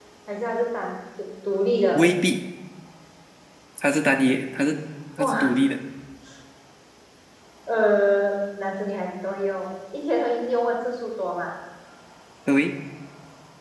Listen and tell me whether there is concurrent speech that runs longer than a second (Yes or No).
No